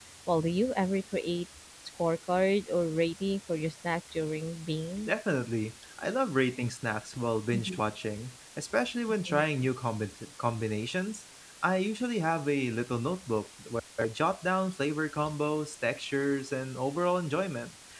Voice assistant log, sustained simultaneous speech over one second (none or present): none